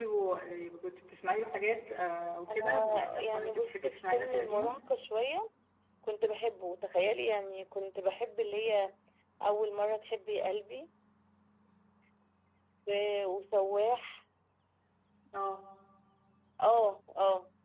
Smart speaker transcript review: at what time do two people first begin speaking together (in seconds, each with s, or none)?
2.5 s